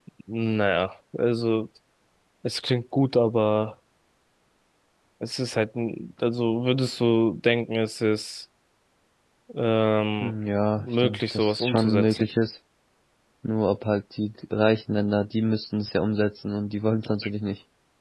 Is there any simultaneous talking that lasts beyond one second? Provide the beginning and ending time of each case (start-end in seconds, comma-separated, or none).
10.8-12.3